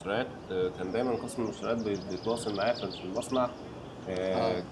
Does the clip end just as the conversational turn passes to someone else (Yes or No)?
No